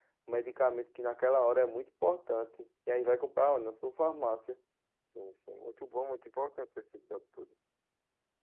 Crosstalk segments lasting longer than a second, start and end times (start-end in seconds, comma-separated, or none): none